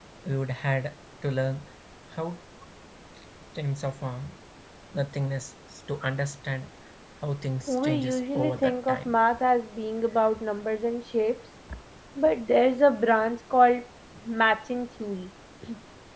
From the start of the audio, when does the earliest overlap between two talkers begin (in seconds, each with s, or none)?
7.7 s